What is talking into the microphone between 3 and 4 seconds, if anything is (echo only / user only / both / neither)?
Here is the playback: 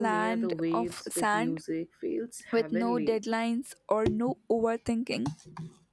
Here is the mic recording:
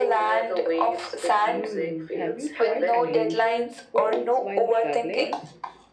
both